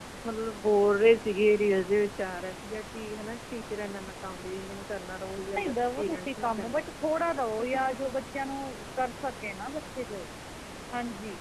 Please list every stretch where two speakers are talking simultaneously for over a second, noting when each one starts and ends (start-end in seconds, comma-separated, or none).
5.4-6.8